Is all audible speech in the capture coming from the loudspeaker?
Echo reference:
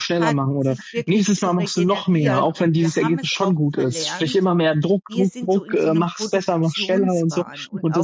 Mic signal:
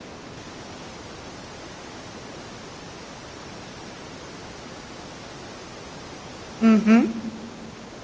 No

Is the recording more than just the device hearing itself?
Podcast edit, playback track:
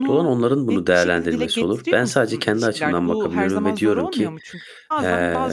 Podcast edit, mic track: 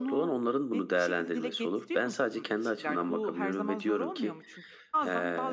No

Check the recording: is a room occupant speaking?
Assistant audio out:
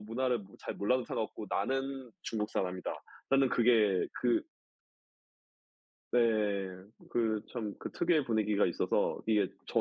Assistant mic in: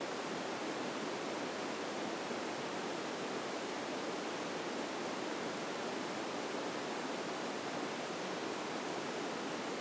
No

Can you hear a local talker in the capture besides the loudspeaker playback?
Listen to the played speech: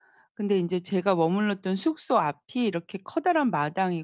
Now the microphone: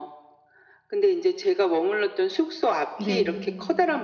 Yes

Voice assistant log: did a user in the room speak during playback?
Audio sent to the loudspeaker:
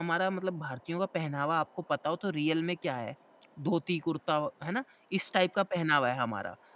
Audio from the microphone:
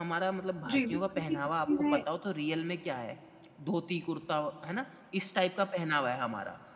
Yes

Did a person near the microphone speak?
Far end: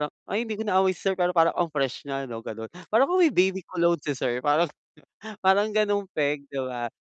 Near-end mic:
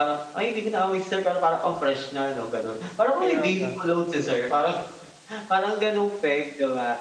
Yes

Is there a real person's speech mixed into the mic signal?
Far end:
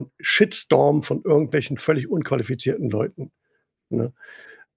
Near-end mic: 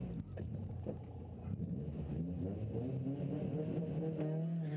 No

